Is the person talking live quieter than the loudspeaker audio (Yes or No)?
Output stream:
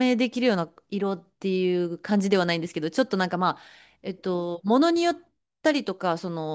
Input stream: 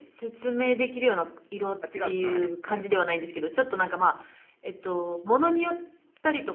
Yes